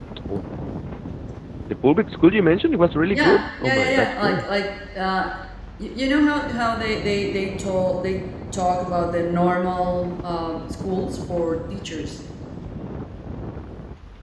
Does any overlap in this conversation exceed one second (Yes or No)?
Yes